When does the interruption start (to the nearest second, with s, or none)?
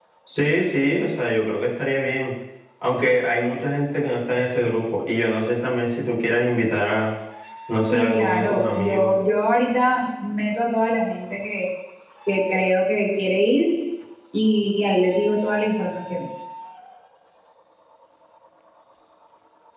8 s